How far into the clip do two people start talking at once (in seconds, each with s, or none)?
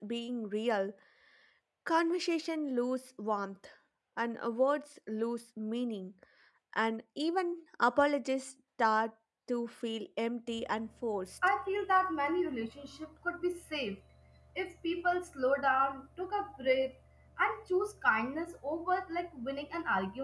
none